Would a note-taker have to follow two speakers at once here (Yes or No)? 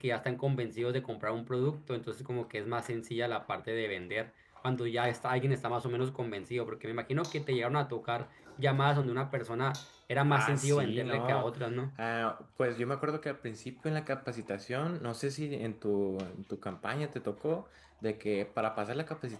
Yes